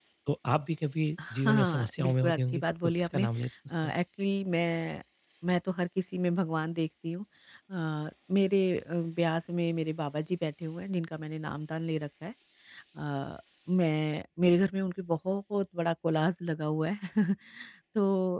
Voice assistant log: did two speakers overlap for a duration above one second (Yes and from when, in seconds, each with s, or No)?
Yes, from 1.2 s